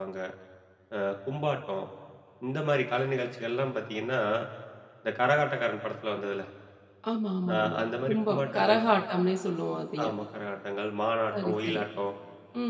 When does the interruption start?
8 s

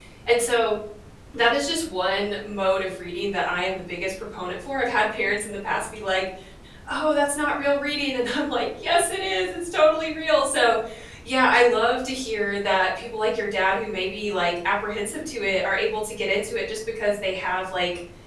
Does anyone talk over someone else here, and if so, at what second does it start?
none

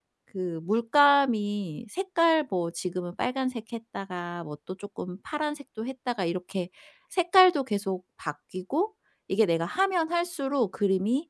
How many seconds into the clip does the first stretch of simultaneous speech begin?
none

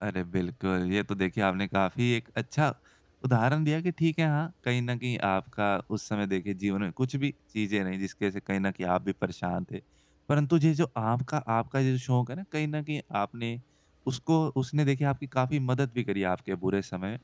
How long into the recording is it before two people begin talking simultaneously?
none

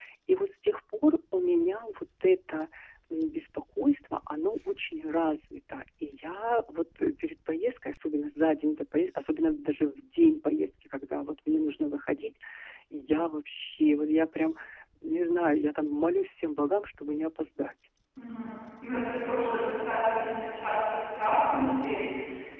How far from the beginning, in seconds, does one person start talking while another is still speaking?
none

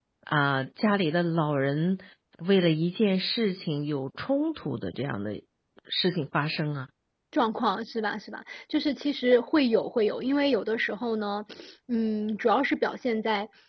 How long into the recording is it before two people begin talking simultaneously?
none

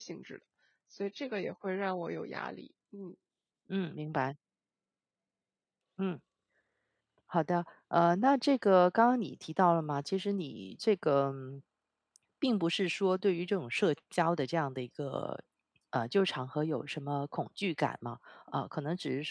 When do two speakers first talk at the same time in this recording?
none

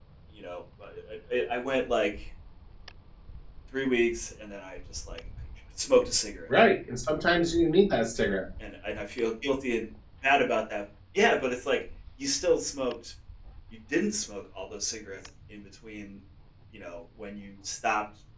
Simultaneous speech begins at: none

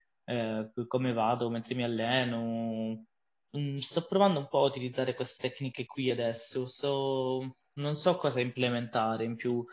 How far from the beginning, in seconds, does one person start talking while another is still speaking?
none

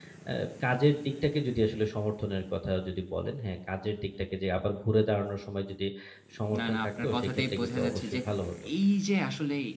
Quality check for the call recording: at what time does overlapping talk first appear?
7 s

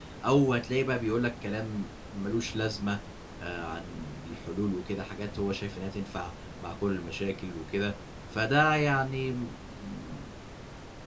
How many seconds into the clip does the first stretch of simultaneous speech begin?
none

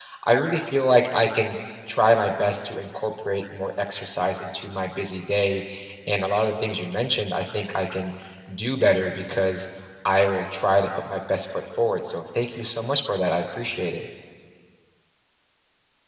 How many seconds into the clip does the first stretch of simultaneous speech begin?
none

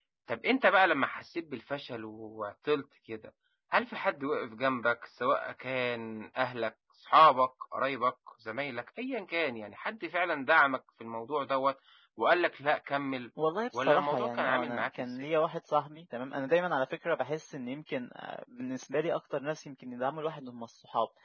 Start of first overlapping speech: 14 s

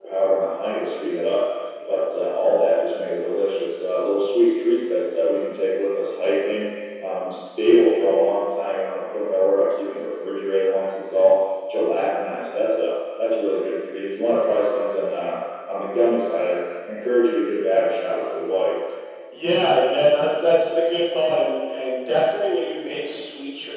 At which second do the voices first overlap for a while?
none

